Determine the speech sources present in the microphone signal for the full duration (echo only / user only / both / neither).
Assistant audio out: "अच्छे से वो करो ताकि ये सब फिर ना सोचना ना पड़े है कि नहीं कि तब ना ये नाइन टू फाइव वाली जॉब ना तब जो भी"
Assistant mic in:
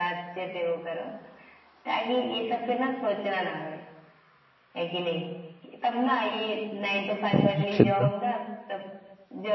both